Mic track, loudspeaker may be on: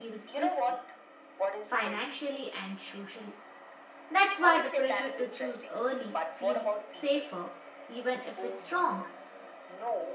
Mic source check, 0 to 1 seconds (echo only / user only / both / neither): both